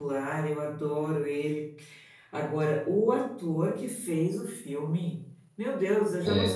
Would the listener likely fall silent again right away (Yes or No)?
Yes